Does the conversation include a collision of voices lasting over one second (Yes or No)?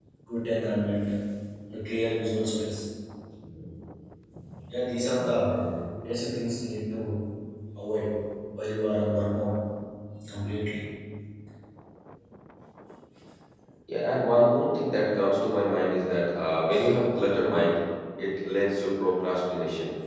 No